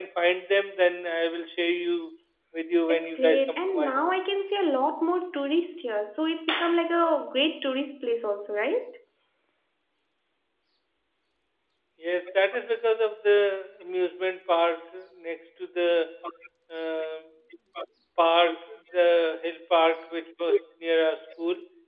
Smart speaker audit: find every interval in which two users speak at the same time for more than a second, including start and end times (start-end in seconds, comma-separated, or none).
2.9-4.1